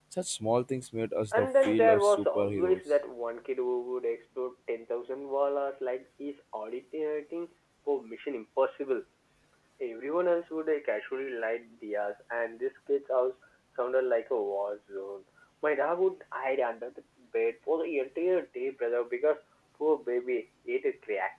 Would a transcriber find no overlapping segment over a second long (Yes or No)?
No